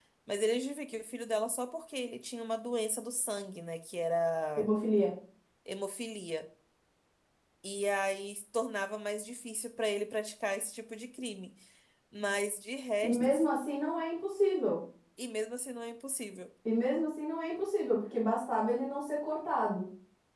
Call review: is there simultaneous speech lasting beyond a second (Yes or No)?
No